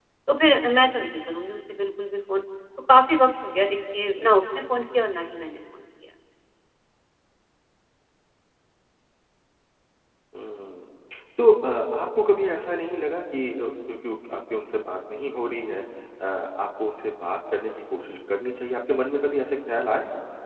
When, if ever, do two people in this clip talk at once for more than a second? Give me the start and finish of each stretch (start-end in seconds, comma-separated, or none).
none